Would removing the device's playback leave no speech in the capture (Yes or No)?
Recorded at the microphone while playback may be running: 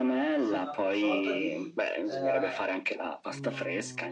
No